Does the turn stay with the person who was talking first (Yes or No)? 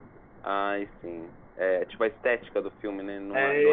No